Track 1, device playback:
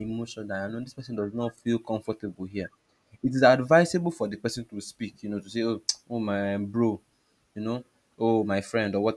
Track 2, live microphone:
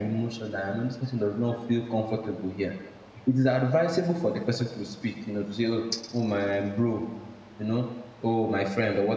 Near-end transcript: none

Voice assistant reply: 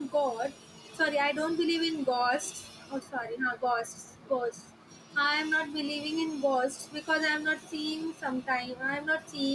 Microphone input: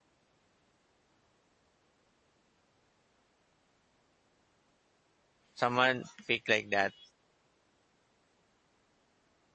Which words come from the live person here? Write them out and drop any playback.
someone picked like that

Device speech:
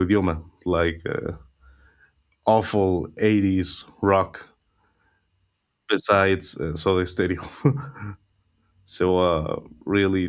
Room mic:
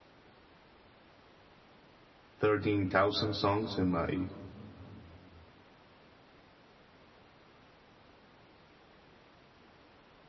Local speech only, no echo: thirteen thousand songs in my

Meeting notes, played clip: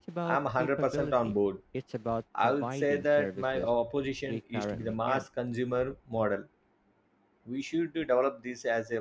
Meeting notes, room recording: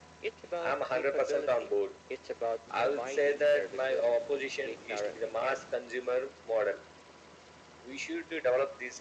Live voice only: none

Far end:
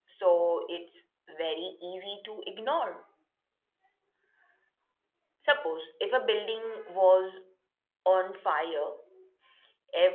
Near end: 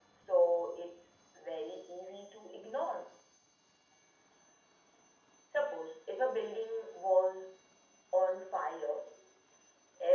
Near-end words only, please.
none

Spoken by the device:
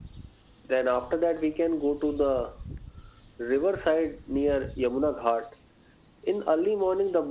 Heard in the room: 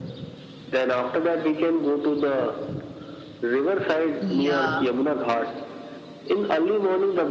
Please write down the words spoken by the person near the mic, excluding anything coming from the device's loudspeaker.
Yeah,

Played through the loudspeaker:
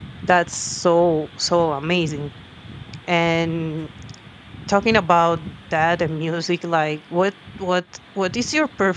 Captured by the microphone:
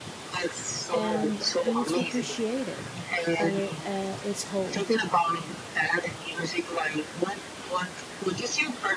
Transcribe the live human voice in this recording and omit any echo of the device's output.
and we need to appreciate it at, at its whole.

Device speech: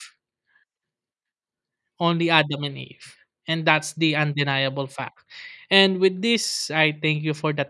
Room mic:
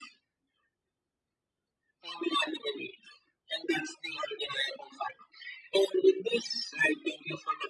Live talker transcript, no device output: none

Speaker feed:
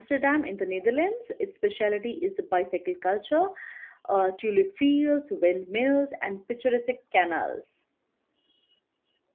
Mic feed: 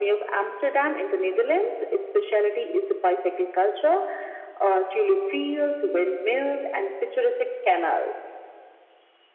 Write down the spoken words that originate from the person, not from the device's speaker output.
none

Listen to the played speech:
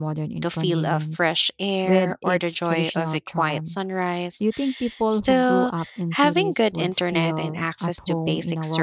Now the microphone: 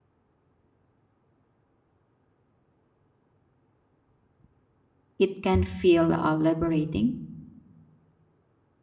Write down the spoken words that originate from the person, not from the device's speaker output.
it can feel uh, liberating

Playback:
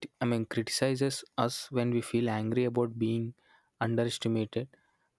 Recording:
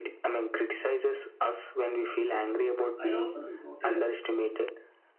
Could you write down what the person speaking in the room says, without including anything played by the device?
I also notice

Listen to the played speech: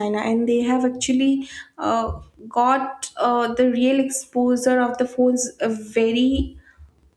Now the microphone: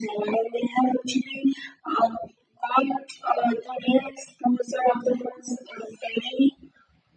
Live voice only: none

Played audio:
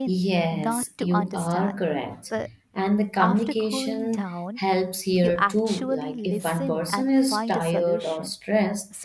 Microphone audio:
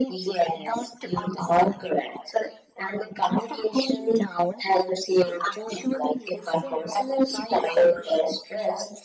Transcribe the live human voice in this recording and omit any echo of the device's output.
none

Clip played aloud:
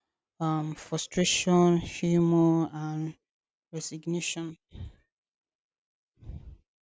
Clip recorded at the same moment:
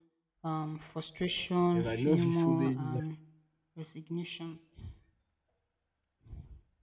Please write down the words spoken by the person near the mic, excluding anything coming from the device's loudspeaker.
You might not be following me.

